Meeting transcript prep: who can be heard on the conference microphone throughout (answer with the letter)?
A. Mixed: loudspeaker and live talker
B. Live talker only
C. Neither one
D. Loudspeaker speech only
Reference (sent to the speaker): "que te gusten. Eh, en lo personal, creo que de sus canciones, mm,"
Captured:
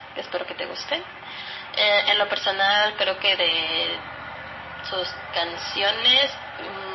D